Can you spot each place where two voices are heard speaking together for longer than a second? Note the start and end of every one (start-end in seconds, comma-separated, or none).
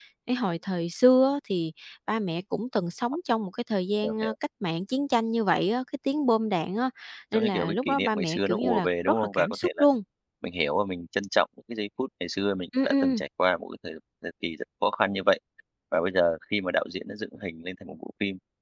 7.3-9.8